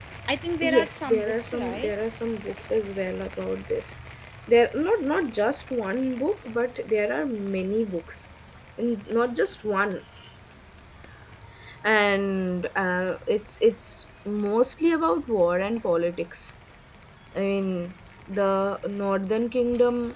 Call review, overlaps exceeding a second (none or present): present